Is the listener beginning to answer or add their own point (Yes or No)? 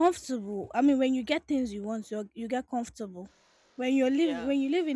No